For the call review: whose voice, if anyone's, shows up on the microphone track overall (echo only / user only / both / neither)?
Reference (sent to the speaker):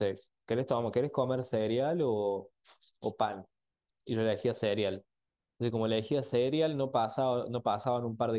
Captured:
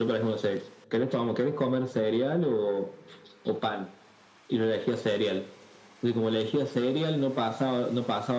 echo only